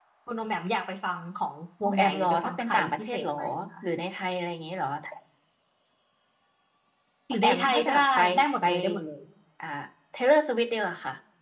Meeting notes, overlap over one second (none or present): present